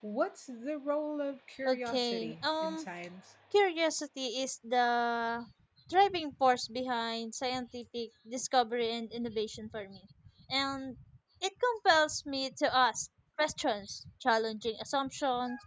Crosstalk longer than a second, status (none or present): present